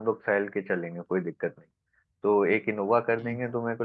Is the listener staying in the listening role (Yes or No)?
Yes